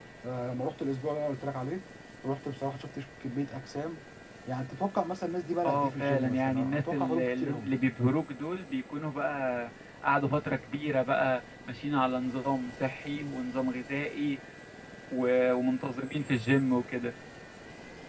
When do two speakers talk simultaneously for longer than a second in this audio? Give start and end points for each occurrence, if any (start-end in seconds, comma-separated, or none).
5.6-7.7